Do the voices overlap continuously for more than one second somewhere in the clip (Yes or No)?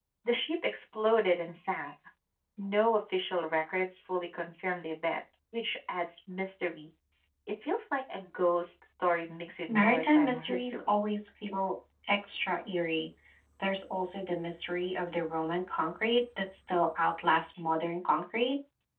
Yes